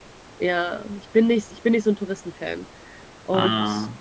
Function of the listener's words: listening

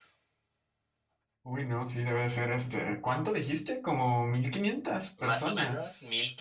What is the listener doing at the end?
taking over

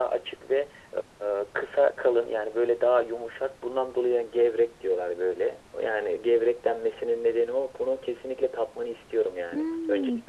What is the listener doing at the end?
taking over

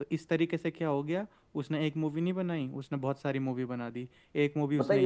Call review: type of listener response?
taking over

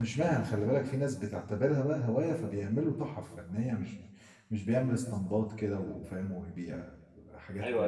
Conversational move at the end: taking over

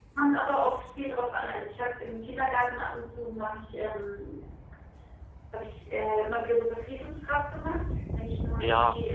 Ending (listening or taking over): taking over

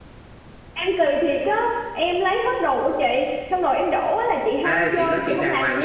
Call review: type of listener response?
taking over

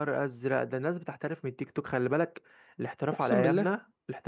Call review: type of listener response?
listening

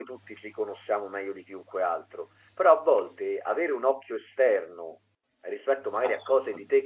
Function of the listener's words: listening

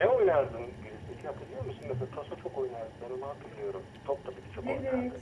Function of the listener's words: taking over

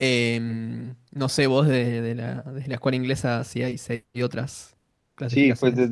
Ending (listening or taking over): taking over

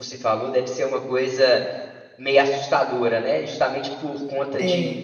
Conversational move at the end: listening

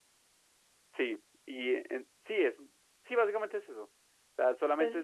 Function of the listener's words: taking over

